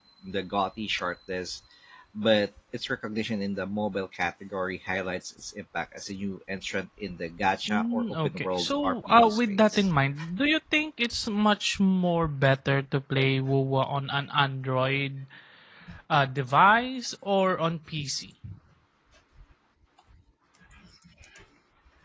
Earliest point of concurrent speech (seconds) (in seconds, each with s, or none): 7.7 s